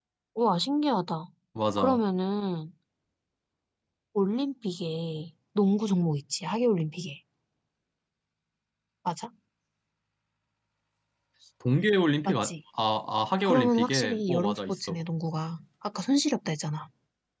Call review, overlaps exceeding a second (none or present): present